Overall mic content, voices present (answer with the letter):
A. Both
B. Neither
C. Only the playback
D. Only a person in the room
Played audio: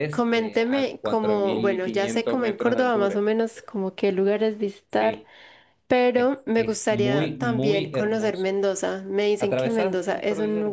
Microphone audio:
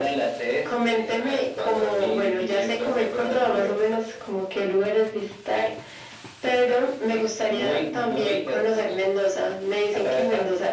C